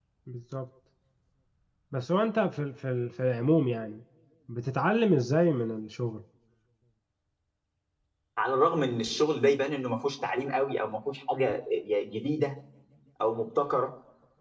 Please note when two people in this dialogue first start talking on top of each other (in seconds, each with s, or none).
none